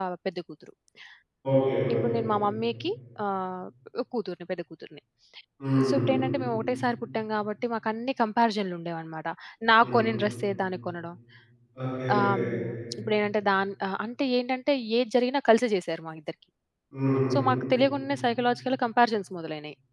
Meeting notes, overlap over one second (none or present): none